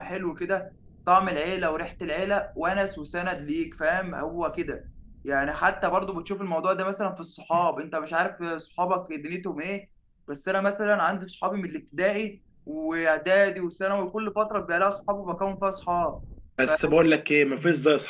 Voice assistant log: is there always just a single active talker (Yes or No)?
Yes